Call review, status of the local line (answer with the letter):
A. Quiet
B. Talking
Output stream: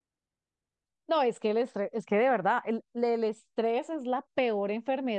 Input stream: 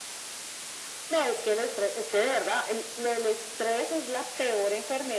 A